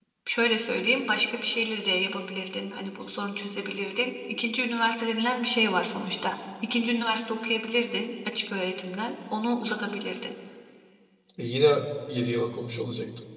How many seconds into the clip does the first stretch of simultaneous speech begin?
none

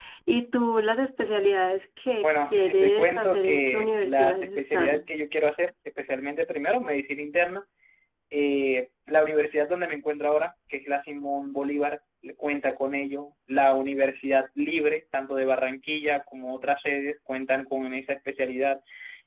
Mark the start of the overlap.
2.2 s

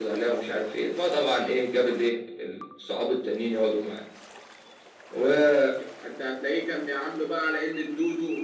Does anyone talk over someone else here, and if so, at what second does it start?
none

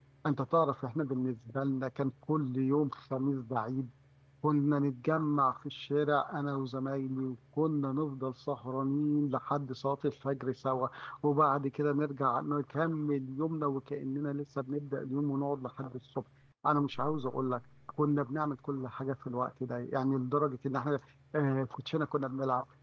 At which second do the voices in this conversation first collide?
none

